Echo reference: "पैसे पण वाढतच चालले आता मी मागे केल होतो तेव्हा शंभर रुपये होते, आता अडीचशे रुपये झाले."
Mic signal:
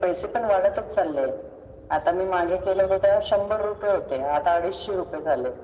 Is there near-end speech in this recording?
No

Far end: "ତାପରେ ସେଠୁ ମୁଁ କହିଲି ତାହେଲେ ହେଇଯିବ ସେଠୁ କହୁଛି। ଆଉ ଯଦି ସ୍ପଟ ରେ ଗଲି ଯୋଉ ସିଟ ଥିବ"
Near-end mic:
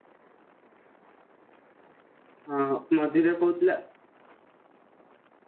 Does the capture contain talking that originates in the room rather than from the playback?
Yes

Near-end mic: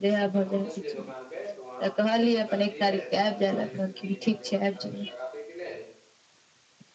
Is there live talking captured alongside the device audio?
Yes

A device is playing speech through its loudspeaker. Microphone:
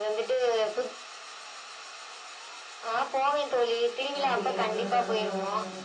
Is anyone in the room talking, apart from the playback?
Yes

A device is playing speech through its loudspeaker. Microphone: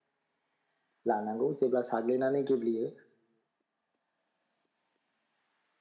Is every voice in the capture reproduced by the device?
No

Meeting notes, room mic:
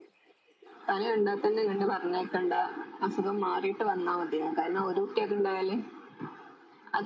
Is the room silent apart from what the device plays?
Yes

